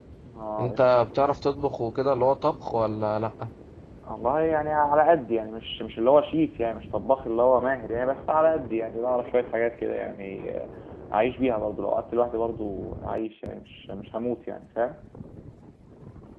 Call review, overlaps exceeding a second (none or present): none